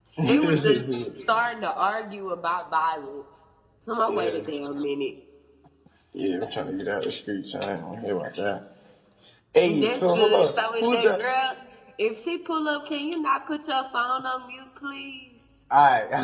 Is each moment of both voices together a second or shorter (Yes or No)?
No